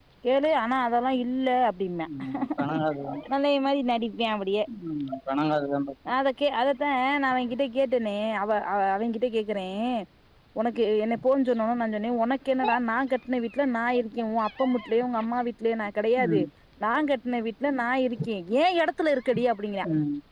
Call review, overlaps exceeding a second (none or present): none